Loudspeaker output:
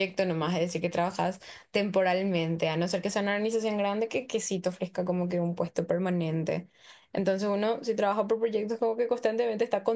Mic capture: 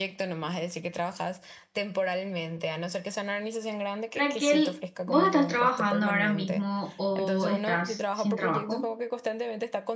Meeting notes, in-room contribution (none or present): present